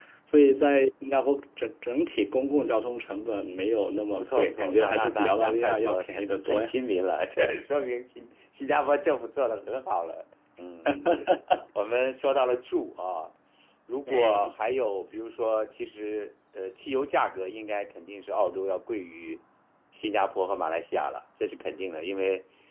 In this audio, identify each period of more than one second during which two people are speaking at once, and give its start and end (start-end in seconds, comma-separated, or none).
4.2-6.7